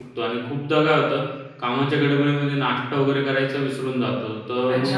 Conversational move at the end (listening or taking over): taking over